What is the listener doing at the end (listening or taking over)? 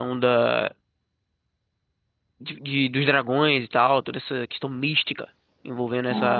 taking over